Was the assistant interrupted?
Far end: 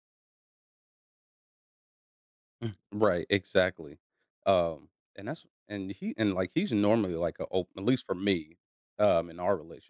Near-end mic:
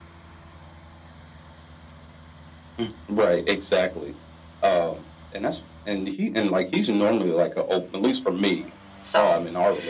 Yes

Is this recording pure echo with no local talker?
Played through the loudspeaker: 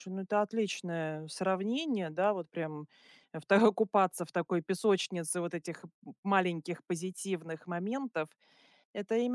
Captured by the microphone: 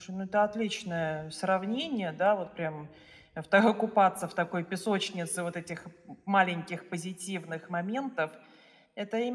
Yes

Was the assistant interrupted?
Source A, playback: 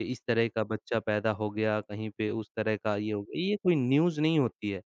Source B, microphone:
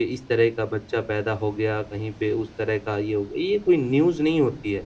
No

